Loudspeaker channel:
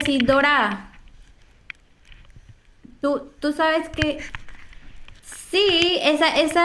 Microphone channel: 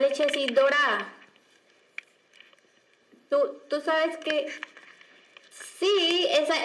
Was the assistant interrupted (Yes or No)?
No